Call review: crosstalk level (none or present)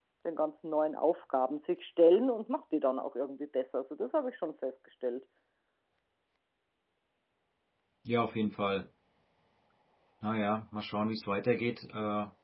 none